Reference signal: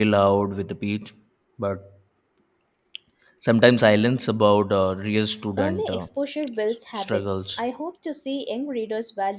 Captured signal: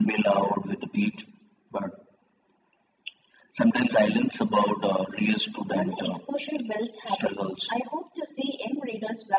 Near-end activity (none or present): none